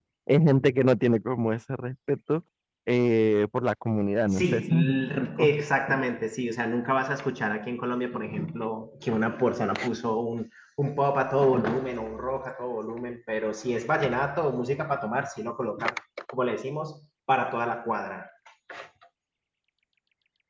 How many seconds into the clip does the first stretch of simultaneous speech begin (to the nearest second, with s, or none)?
4 s